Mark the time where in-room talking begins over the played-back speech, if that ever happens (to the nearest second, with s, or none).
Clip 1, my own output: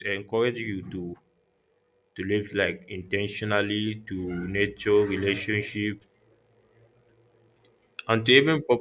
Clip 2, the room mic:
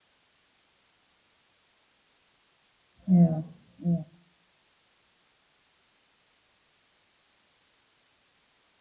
3 s